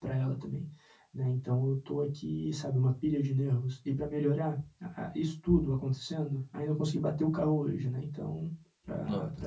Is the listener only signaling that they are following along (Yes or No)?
Yes